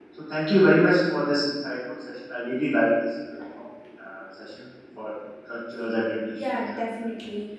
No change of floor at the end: No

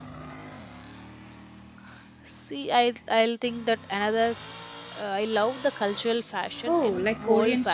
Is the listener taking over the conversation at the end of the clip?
Yes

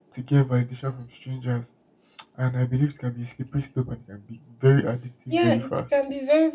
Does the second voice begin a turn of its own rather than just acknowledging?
Yes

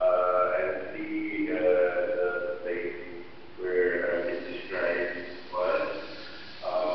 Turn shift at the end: No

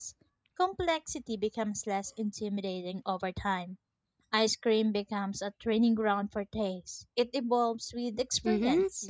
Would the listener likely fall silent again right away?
No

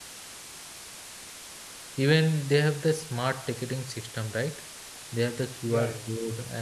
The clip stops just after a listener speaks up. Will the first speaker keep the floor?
Yes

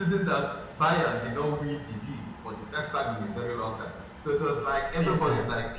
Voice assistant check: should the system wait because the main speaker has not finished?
Yes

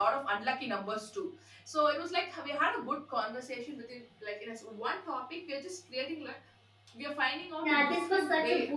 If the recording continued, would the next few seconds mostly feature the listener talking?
Yes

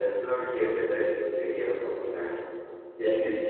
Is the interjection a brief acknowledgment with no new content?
Yes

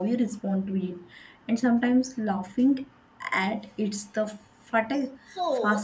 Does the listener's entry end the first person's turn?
Yes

